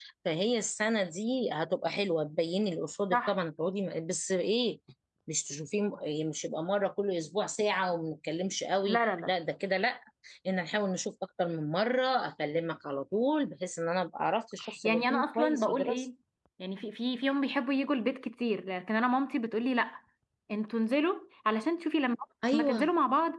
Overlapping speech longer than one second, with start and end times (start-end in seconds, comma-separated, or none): 14.8-16.0